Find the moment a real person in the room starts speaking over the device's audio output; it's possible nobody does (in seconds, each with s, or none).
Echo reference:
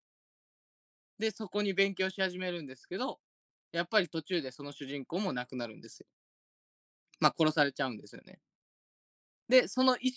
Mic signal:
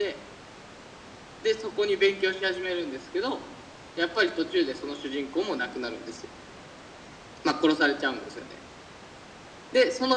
none